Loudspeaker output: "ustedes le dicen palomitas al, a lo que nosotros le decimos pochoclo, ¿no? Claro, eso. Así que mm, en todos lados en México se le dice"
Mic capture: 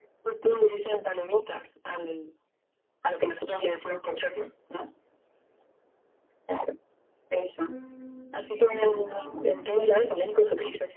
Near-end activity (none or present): present